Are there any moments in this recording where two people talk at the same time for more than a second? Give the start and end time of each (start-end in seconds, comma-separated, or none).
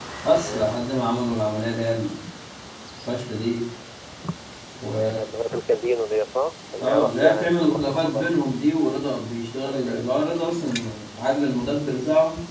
6.8-8.3